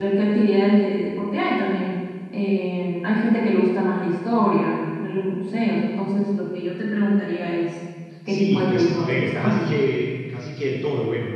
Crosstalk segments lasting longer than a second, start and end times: 8.3-9.6

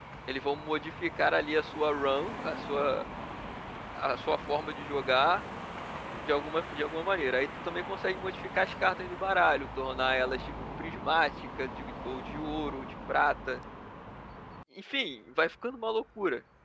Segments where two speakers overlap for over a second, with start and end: none

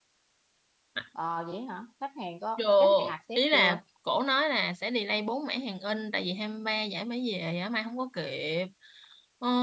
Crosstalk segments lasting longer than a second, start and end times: 2.6-3.8

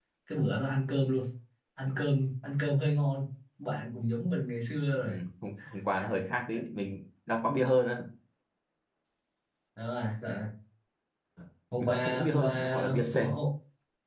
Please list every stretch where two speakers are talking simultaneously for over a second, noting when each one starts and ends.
11.8-13.3

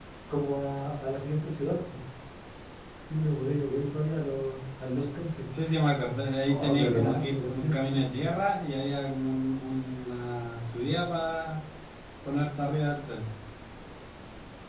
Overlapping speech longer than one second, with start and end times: 6.5-7.8

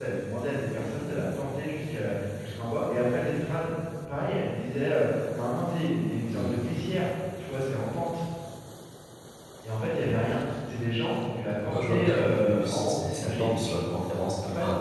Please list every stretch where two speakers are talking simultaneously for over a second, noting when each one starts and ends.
11.7-13.6

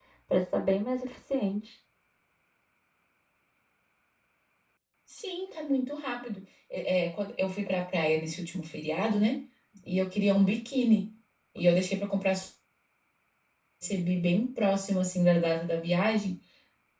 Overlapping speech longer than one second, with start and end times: none

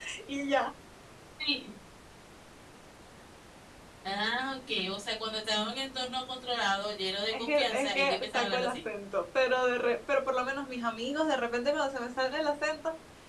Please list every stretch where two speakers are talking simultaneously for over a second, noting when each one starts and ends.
7.3-8.8

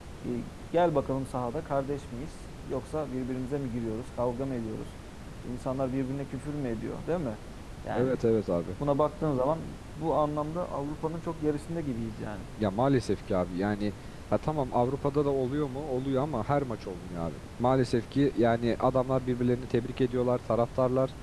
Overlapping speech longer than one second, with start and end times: none

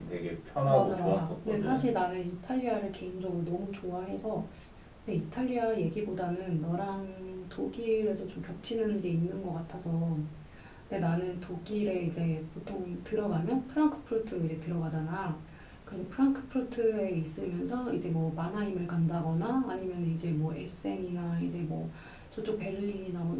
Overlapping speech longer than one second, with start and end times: 0.7-1.9

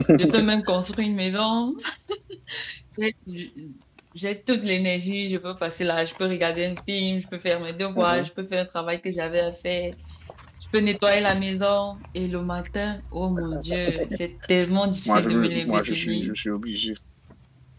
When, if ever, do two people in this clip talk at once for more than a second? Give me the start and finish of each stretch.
15.0-16.4

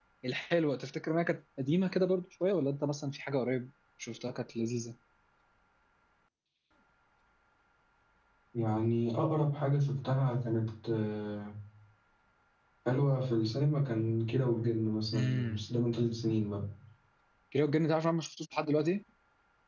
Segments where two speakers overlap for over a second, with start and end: none

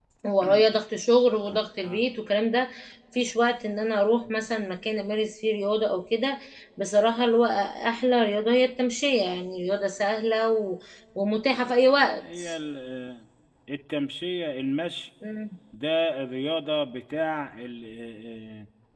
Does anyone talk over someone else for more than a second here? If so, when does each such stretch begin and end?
none

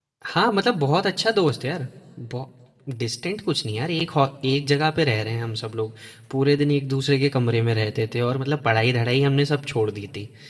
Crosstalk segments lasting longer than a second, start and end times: none

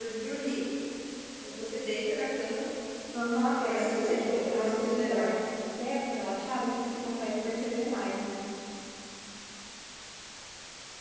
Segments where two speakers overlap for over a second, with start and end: 3.6-5.4

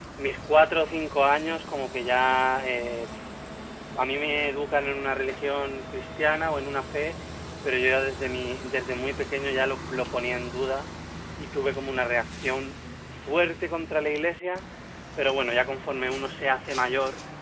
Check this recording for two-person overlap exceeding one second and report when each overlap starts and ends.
none

